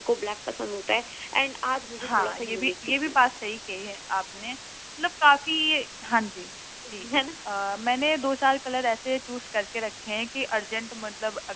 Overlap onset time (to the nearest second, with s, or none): 2 s